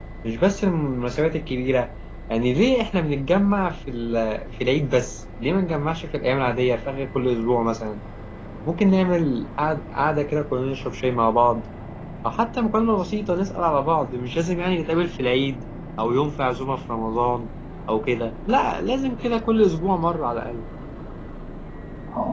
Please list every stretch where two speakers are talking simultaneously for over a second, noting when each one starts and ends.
none

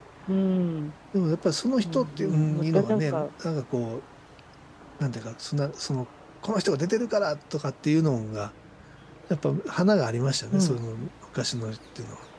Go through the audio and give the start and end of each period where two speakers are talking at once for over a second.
1.8-3.2

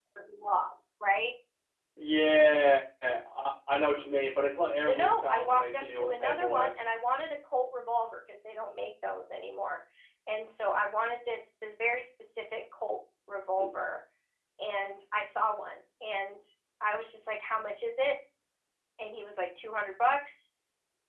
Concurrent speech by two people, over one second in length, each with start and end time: 4.8-6.7

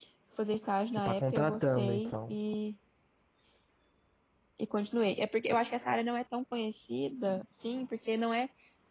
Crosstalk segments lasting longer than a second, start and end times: 0.9-2.4

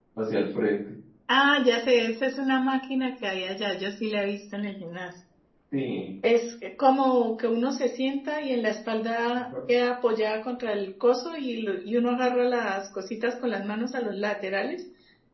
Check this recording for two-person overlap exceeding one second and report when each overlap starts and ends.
none

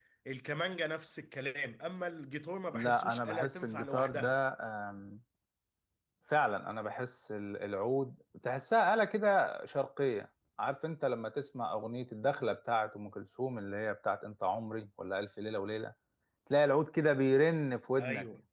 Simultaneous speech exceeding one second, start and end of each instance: 2.7-4.4

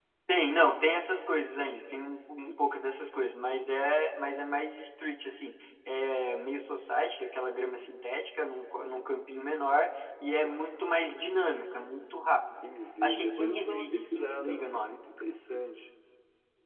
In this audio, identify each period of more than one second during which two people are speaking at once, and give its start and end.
13.0-15.0

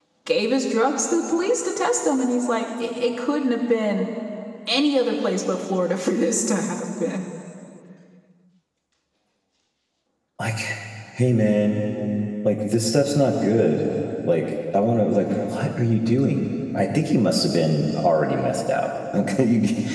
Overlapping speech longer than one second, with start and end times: none

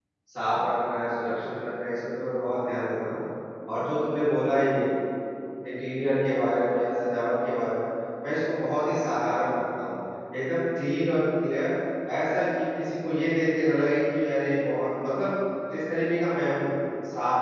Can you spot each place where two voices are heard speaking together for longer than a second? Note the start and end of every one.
none

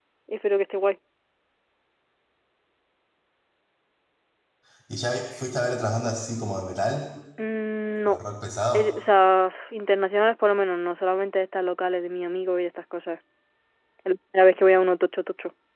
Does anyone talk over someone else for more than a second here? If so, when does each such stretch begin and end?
none

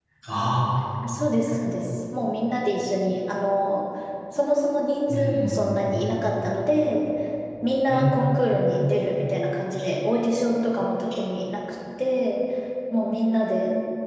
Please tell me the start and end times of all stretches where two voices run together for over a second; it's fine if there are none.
none

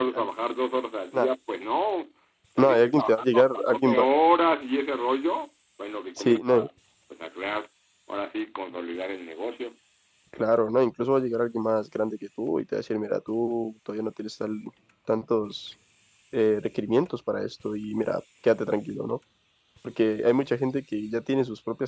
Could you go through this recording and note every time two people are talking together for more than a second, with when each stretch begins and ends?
2.6-4.1

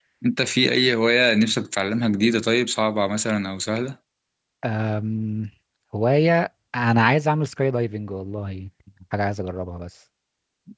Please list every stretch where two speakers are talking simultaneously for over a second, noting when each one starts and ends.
none

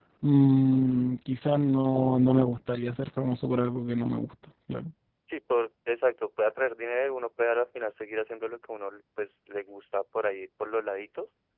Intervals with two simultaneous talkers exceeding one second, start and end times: none

